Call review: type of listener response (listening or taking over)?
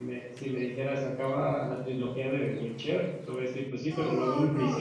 taking over